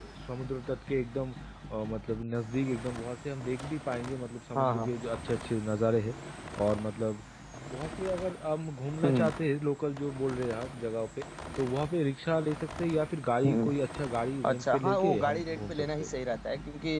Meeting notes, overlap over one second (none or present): present